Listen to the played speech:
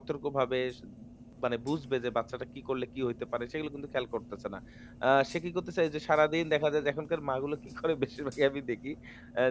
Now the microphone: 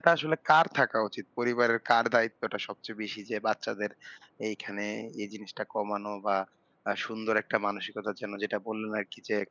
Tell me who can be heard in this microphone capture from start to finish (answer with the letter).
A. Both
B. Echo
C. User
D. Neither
C